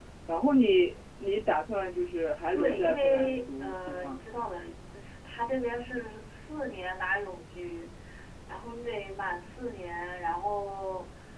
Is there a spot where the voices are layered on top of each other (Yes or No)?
Yes